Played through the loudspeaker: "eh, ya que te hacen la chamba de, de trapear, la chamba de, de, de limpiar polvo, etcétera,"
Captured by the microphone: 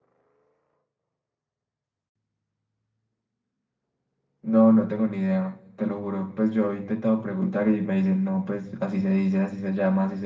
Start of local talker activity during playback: 4 s

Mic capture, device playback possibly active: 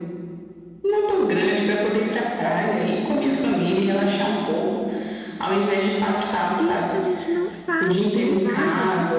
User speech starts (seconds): 7 s

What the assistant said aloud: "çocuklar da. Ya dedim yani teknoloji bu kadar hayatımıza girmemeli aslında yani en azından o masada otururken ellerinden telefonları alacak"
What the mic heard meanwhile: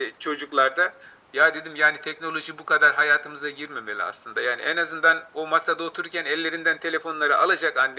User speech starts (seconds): none

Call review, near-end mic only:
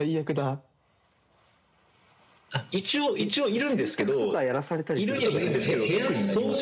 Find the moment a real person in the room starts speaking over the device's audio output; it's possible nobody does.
5 s

